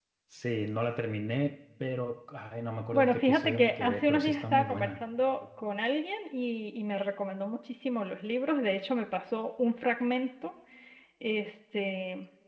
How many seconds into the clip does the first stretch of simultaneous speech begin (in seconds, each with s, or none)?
2.9 s